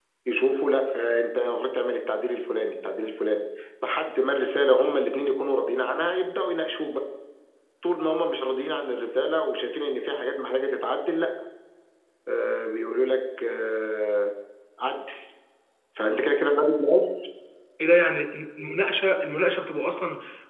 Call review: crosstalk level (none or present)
none